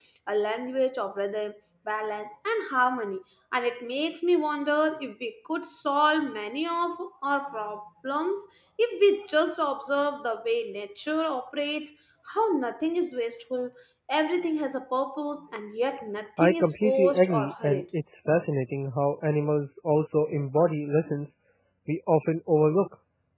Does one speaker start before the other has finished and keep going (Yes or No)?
Yes